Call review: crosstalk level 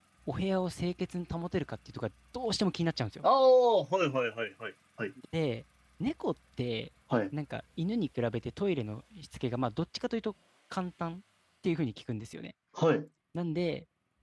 none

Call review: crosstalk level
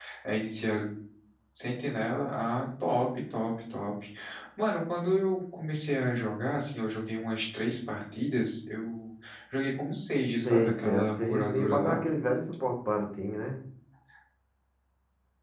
present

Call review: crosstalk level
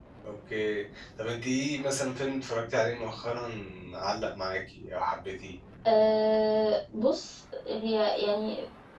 none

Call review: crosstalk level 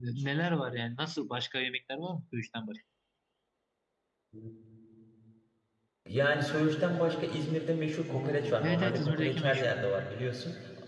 present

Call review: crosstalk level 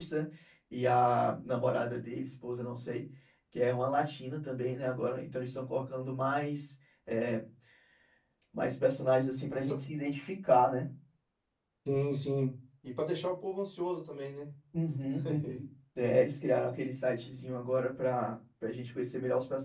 none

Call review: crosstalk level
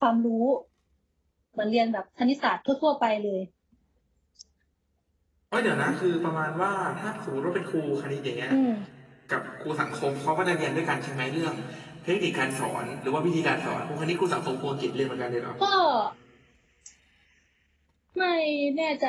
none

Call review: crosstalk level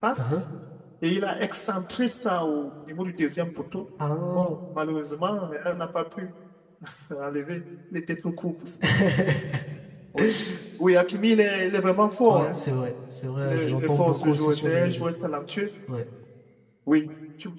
present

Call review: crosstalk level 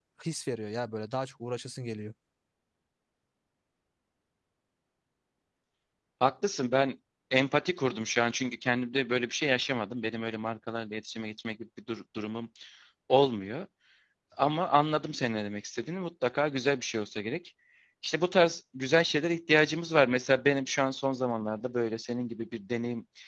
none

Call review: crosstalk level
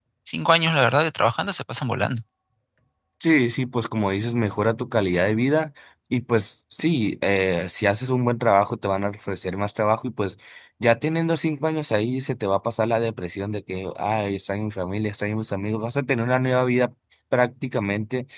none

